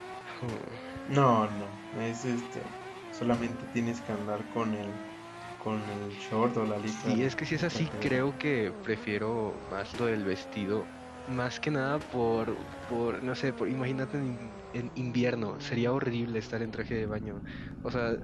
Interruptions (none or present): present